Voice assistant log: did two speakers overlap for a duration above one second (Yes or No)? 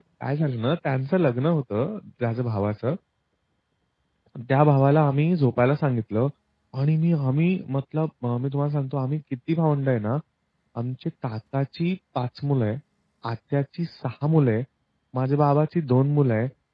No